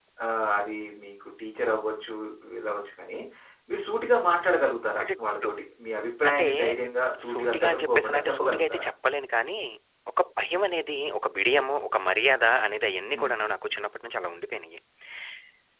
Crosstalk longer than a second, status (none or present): present